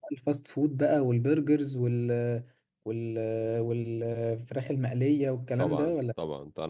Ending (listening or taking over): taking over